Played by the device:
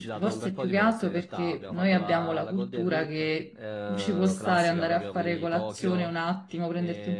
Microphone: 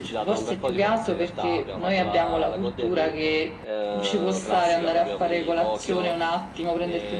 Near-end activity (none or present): none